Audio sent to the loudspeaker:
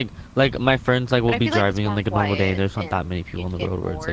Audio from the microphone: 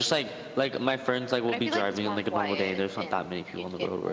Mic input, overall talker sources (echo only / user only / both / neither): echo only